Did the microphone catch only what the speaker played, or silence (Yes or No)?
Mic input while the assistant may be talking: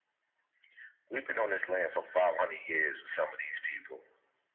Yes